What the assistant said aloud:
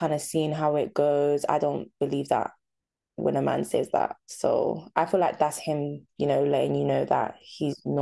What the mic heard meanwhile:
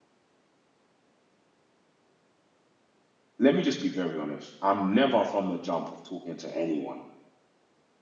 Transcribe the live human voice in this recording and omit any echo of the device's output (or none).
let me just be very honest. I'm never from the jump of talking to anyone